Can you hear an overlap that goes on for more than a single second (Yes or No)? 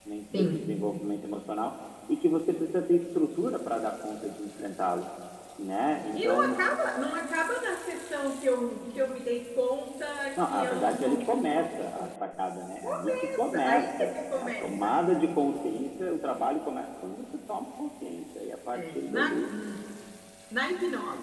Yes